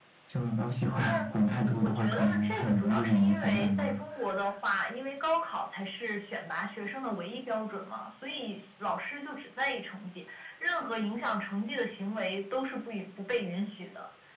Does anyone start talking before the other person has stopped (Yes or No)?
Yes